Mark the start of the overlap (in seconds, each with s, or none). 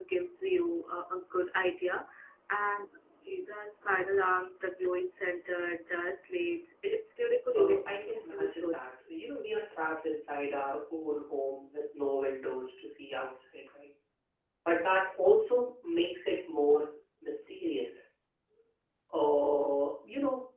7.5 s